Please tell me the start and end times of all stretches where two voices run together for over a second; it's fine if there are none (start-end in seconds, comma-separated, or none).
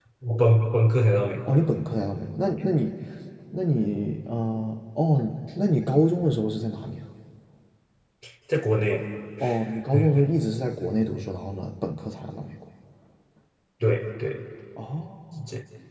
none